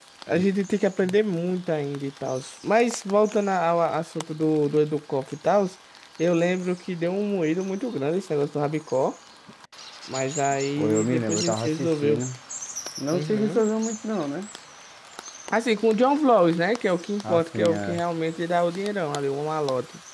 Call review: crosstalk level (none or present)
present